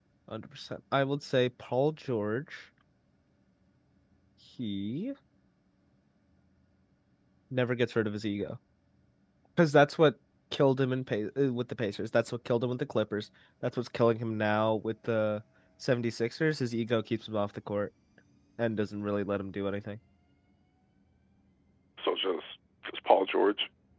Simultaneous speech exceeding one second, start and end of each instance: none

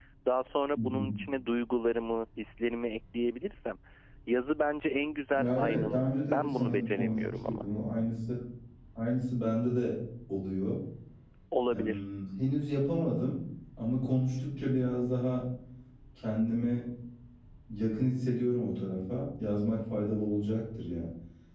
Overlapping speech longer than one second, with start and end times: 5.3-7.6

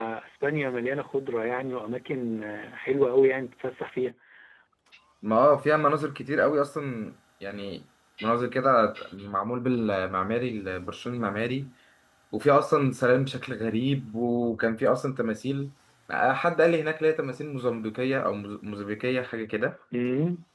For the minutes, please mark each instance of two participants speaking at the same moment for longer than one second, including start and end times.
none

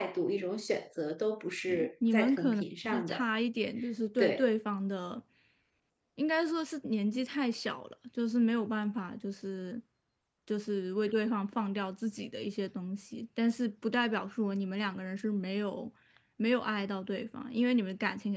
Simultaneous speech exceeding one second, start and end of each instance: 1.7-3.2

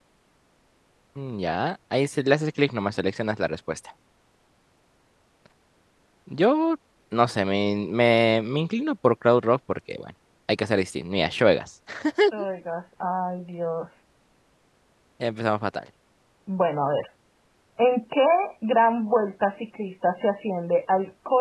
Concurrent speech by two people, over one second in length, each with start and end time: none

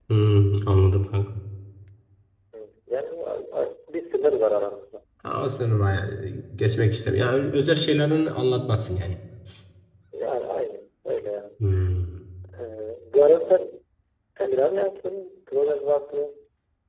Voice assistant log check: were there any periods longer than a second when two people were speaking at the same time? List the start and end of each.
none

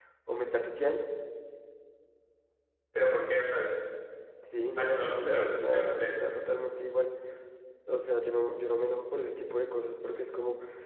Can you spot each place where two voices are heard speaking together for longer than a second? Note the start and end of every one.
4.8-6.2

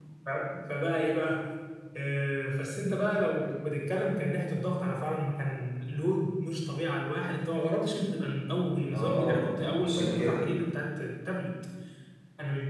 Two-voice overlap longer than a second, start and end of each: 8.9-10.5

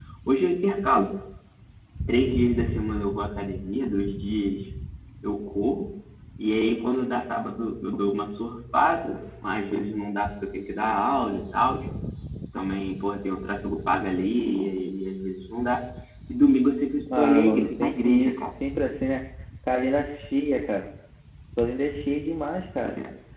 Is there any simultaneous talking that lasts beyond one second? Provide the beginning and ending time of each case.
17.2-18.6

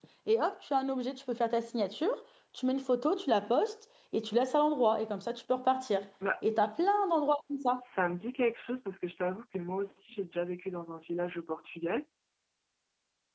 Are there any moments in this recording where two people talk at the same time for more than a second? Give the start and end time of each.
none

